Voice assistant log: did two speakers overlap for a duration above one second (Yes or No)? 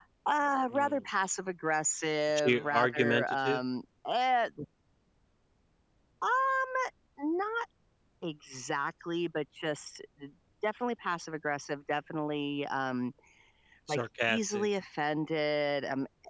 Yes